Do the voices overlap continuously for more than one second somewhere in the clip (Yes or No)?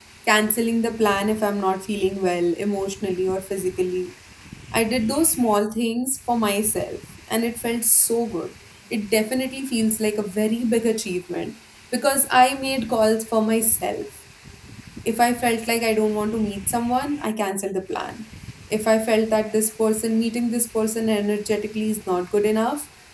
No